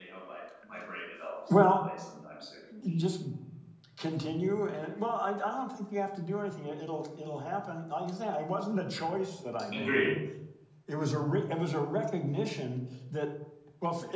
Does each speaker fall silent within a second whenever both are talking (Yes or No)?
Yes